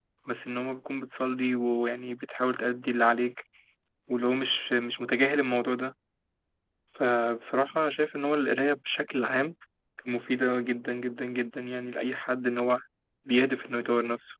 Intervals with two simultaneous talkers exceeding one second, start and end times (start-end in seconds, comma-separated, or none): none